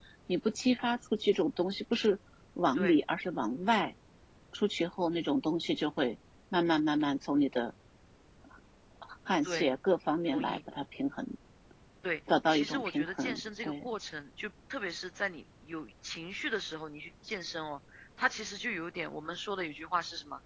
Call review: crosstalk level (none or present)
present